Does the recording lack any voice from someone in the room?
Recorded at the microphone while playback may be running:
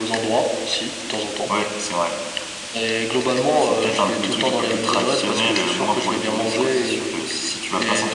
Yes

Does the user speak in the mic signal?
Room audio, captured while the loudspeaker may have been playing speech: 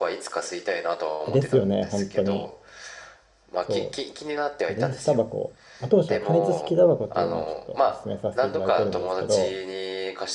Yes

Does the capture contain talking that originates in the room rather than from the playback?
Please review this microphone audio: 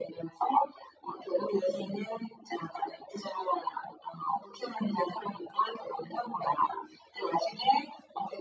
No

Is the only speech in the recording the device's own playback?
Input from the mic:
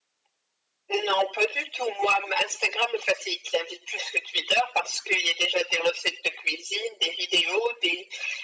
Yes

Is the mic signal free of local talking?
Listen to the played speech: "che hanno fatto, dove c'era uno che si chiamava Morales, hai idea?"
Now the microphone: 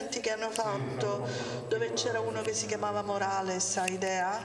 No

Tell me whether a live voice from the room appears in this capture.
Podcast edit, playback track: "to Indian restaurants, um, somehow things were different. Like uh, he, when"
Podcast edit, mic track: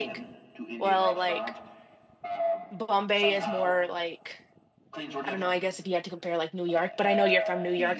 Yes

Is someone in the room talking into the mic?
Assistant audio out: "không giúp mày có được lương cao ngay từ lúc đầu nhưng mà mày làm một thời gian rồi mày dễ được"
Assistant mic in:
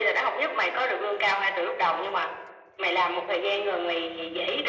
No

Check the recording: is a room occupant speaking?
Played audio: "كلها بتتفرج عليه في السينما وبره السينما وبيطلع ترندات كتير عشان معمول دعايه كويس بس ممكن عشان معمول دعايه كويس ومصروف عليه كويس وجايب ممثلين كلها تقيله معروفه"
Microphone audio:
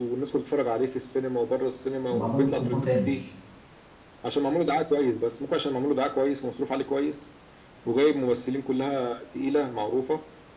Yes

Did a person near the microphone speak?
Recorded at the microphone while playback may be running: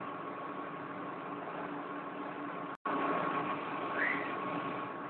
No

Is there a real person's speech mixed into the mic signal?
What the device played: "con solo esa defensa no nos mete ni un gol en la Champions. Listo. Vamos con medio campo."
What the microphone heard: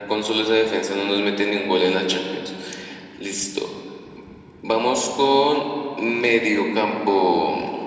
No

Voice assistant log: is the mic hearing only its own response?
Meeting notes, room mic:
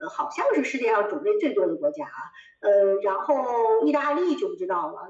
Yes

